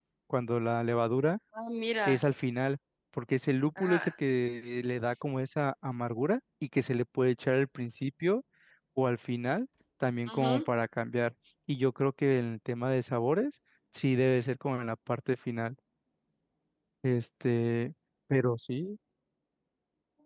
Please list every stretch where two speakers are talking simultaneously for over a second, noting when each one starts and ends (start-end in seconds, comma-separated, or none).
none